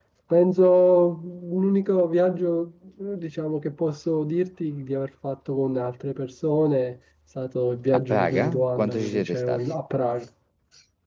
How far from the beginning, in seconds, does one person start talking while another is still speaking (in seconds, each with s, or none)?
7.9 s